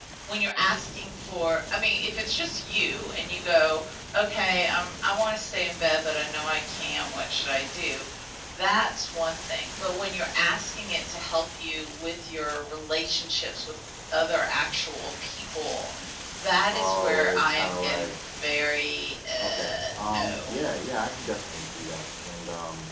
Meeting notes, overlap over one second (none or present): present